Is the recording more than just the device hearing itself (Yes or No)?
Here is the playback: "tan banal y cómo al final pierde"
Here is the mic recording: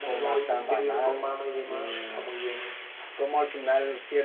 Yes